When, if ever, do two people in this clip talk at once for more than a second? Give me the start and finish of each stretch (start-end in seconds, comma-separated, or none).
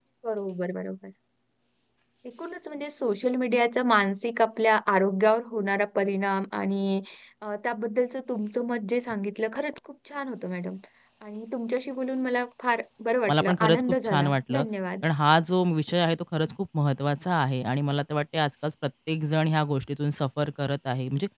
13.3-14.6